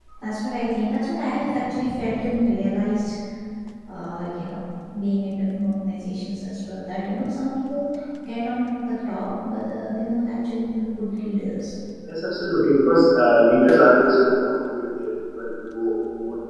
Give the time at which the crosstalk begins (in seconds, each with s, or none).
none